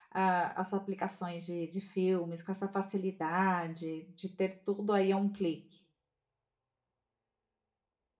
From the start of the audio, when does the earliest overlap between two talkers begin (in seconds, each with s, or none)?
none